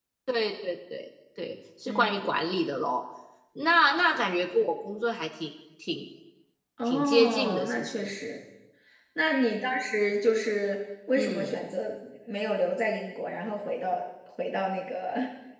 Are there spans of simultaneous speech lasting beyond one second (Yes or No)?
Yes